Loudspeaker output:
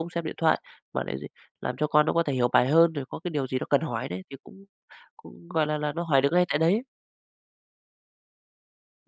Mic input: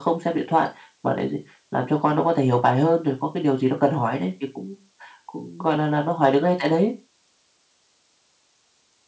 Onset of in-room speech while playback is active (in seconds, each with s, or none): none